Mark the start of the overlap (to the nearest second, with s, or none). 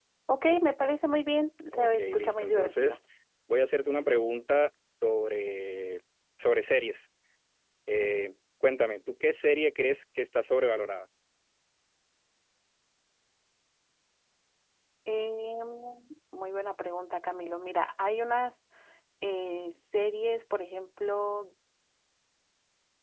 2 s